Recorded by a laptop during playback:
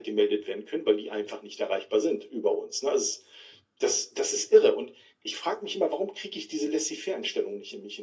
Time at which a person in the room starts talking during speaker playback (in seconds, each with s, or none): none